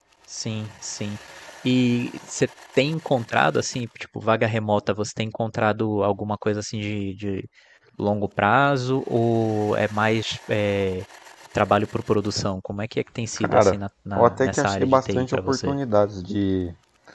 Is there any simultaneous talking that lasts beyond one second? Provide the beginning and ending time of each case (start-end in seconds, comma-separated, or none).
14.2-15.8